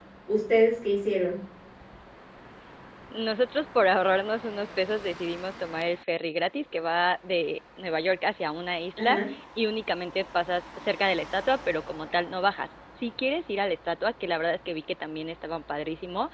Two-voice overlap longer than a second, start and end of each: none

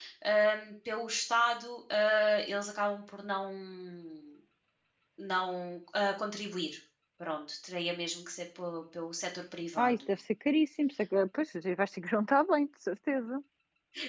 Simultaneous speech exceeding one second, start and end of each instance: none

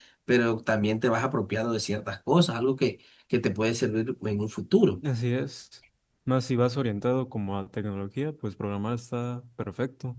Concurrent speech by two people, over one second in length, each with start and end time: none

